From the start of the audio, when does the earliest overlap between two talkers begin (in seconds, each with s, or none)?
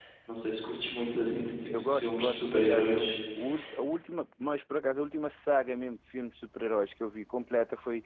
1.7 s